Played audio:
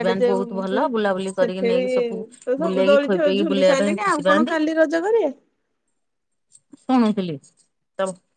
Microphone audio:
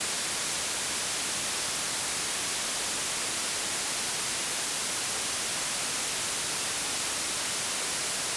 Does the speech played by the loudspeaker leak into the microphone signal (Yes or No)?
No